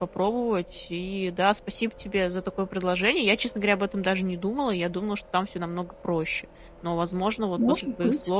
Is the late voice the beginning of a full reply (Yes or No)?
No